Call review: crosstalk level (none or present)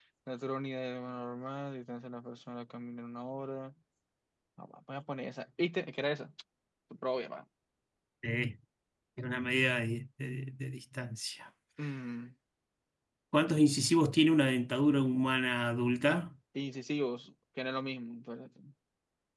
none